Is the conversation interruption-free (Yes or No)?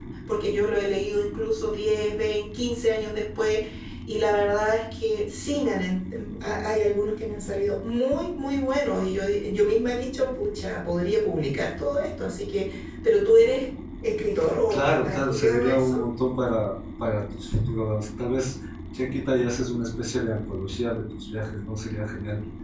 No